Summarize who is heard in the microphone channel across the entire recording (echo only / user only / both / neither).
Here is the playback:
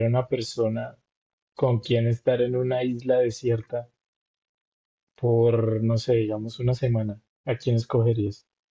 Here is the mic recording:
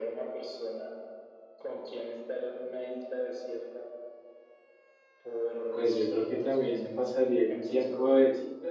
both